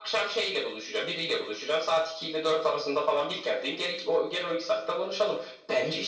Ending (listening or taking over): taking over